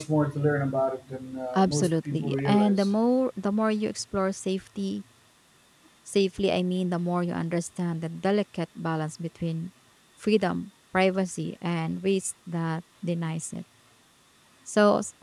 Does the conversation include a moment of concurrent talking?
Yes, from 1.5 s

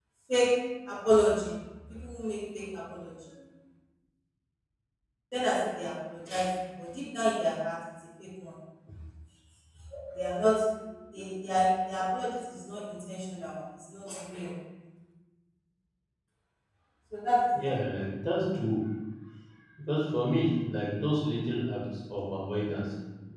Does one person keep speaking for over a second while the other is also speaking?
No

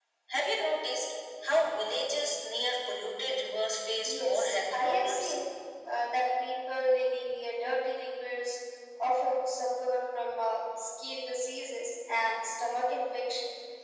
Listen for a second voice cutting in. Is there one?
Yes, from 4.0 s

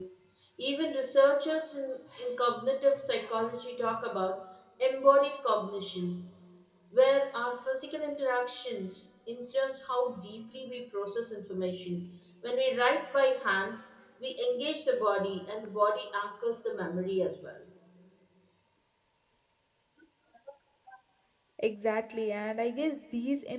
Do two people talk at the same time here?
No

